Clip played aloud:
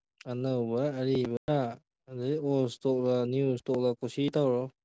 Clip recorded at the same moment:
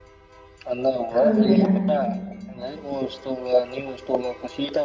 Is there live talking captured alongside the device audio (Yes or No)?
Yes